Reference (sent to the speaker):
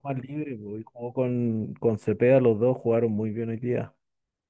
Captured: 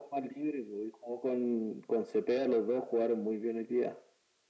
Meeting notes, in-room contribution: none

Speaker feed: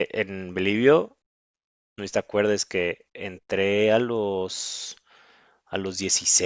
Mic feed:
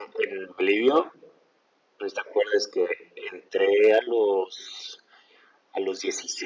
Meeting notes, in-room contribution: none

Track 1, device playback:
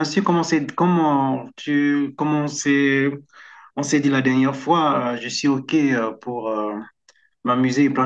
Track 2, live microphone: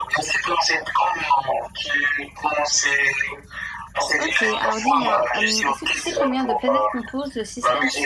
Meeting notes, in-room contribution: present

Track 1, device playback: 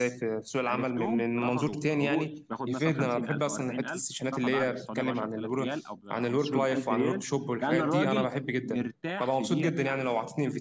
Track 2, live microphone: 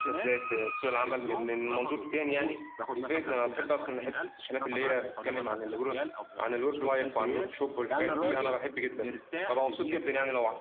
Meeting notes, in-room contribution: none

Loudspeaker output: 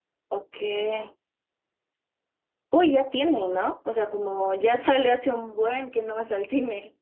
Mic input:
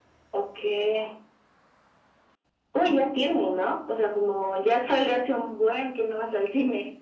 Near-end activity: none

